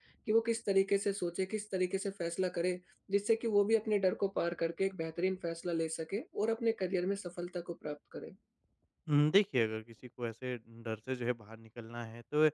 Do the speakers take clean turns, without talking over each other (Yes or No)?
Yes